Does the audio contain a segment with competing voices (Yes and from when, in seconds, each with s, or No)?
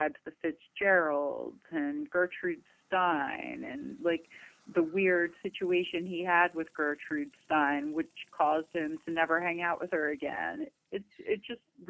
No